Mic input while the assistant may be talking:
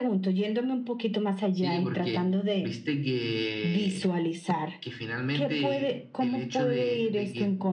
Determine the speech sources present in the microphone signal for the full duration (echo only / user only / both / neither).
both